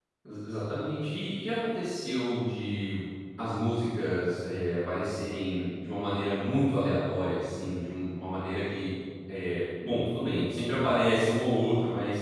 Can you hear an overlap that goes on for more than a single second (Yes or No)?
No